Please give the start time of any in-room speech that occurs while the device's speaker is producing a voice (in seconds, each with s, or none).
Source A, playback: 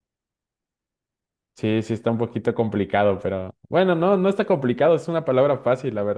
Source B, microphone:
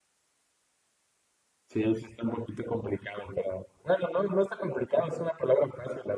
none